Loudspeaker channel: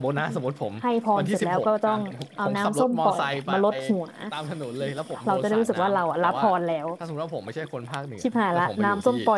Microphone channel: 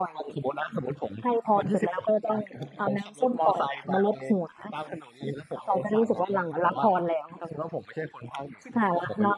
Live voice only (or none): none